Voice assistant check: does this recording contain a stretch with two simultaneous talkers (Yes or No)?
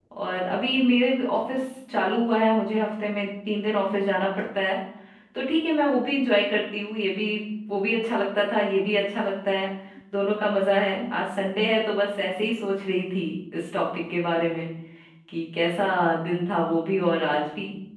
No